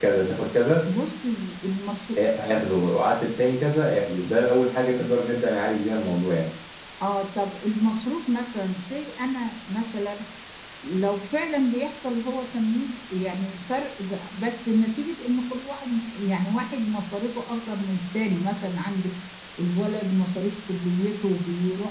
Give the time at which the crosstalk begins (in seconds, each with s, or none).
none